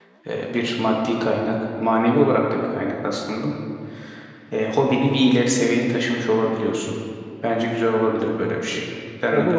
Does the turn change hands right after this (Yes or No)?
Yes